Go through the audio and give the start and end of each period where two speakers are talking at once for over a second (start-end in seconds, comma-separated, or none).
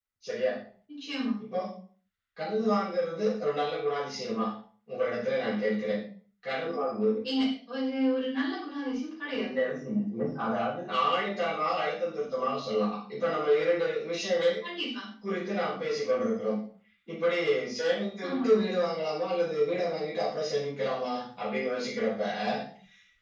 none